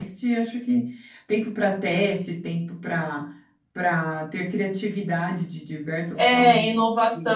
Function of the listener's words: taking over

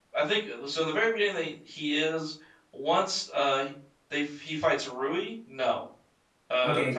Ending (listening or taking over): taking over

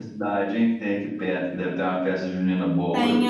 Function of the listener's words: taking over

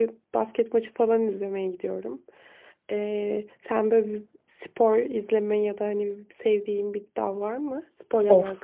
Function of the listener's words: taking over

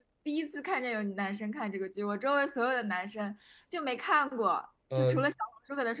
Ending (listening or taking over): listening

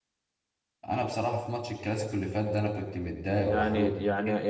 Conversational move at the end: taking over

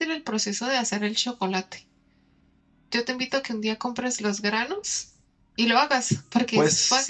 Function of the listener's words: taking over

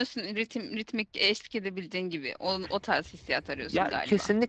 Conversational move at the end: taking over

